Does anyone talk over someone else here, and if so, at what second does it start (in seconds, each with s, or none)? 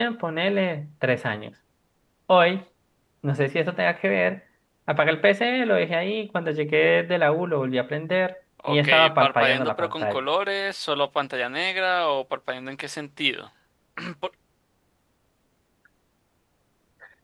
8.6 s